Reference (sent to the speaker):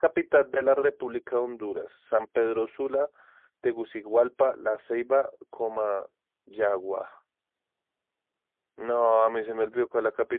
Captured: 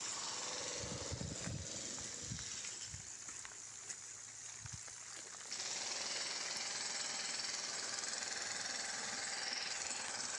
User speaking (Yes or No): No